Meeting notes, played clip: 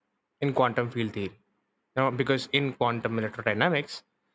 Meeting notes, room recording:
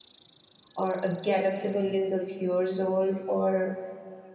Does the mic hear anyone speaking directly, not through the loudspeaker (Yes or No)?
Yes